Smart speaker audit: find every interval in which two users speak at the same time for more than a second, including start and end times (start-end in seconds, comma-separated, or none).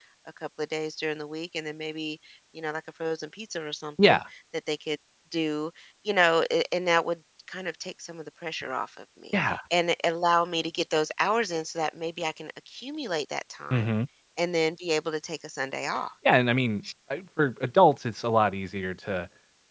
none